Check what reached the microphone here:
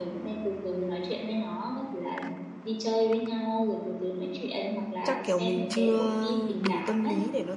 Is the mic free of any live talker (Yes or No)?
No